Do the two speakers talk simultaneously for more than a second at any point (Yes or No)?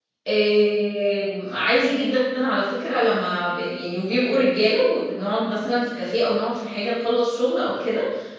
No